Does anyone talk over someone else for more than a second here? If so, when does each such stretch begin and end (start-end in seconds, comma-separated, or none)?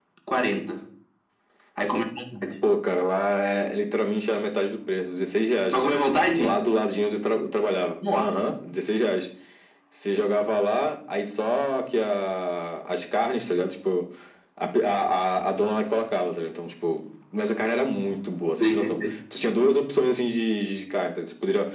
none